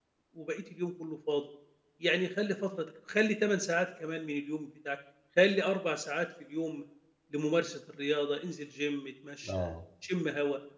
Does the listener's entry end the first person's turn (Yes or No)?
No